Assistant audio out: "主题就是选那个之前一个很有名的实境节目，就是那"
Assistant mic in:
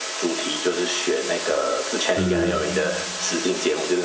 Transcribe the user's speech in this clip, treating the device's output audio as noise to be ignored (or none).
嗯